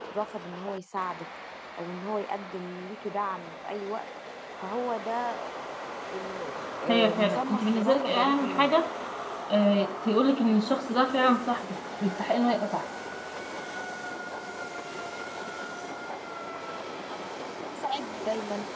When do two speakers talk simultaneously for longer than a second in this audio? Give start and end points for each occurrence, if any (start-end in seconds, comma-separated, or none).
6.9-8.7